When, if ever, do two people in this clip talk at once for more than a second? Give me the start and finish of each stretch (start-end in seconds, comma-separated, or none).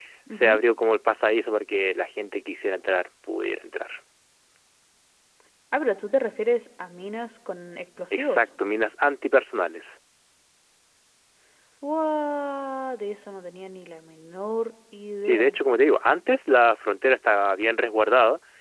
none